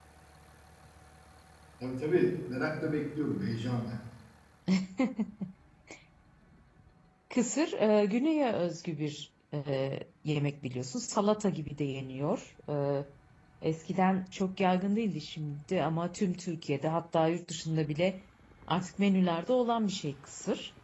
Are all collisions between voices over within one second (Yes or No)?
Yes